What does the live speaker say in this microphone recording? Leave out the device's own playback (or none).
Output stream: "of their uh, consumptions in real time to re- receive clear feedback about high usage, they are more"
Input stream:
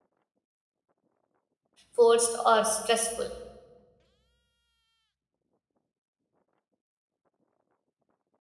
forced or stressful?